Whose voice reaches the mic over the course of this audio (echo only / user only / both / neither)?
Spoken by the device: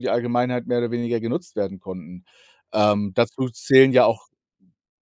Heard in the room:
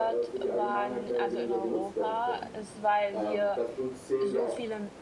both